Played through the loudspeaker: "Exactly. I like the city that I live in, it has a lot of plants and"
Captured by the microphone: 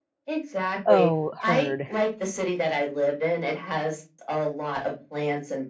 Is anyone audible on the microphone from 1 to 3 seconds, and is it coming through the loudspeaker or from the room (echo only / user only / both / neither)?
both